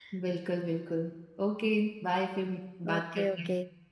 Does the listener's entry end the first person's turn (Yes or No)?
Yes